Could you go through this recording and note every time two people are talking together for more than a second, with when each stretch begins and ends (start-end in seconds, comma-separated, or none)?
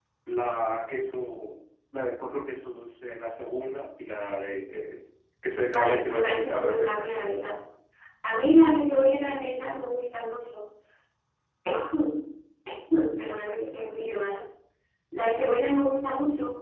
5.7-7.2